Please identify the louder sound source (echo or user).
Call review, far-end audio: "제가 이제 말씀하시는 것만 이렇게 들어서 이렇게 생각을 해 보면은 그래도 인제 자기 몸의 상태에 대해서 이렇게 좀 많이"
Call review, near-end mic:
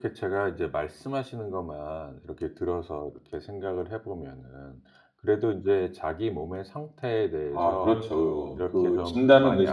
user